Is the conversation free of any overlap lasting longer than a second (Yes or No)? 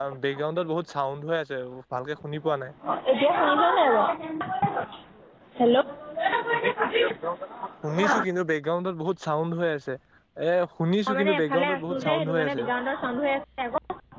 No